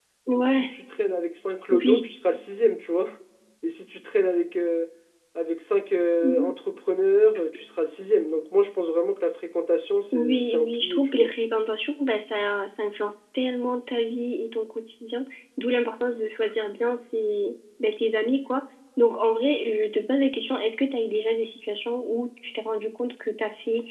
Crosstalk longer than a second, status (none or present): present